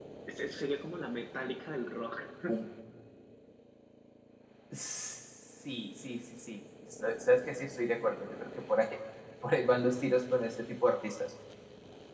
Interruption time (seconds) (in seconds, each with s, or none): none